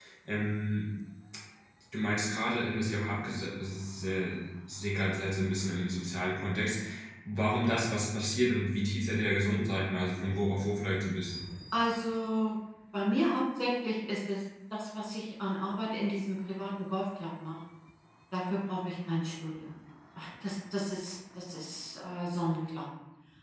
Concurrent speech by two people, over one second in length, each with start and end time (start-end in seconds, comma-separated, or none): none